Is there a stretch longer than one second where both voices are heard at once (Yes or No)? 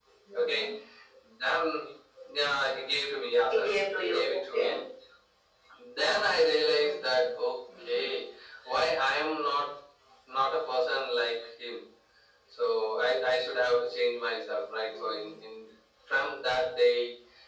Yes